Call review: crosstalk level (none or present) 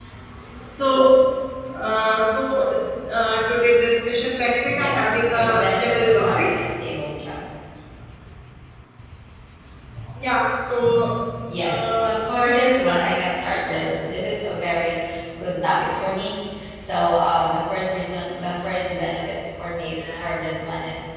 present